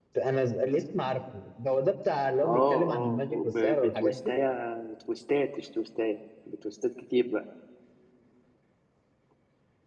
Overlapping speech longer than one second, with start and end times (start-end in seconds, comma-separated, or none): 2.4-4.3